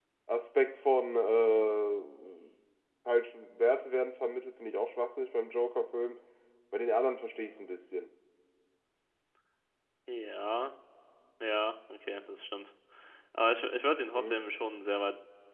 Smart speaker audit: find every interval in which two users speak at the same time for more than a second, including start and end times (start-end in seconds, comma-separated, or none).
none